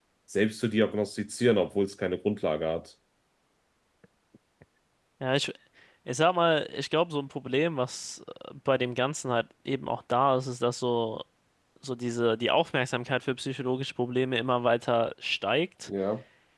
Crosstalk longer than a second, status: none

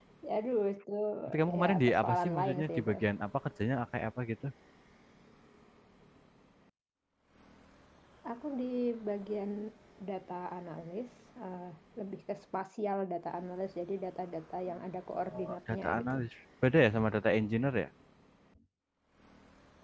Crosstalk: present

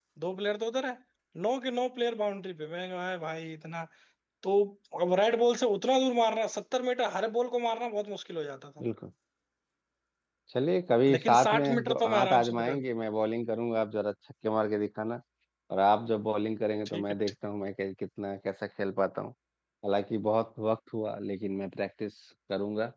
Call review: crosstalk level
present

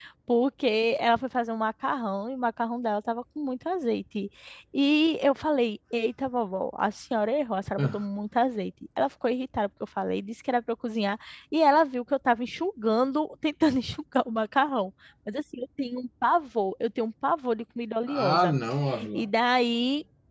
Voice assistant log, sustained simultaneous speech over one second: none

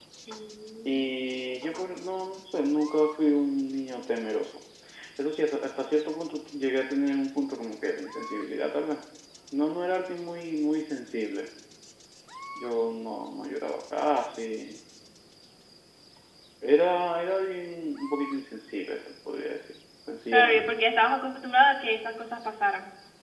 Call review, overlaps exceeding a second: none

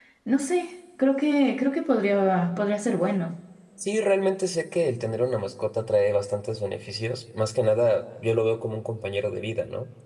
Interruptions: none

